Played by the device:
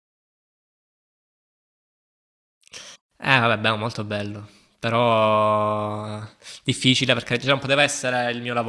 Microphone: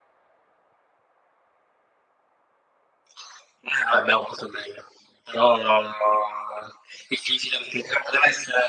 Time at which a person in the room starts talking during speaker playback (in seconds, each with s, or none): none